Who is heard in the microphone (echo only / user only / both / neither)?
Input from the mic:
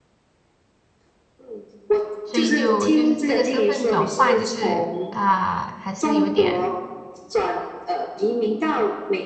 both